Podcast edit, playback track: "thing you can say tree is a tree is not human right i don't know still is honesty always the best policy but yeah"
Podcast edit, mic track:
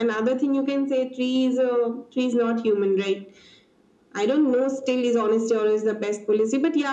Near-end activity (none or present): none